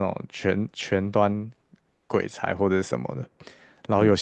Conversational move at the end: listening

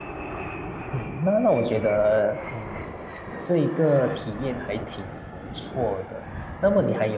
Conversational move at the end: listening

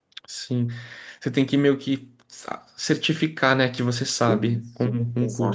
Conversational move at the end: taking over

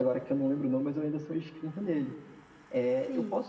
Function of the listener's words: listening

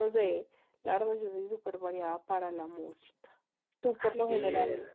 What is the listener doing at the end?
taking over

